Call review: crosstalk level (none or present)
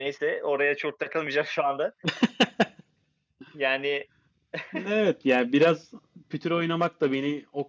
none